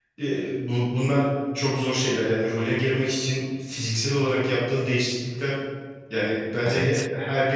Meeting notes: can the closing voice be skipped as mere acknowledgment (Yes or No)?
Yes